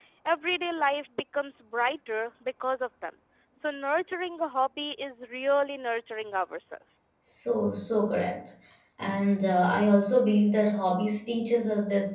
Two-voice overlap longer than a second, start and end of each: none

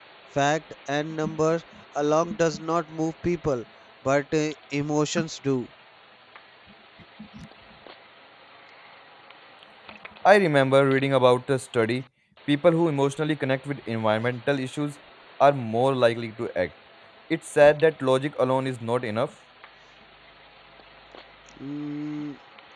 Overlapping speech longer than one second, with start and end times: none

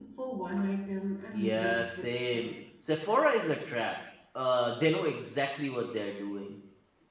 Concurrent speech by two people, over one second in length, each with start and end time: 1.3-2.5

